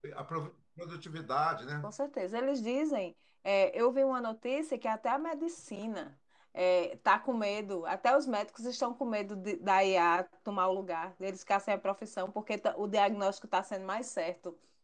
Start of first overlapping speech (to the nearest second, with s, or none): none